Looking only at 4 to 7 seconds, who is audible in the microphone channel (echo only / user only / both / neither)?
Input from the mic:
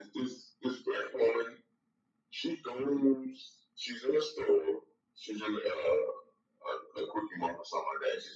echo only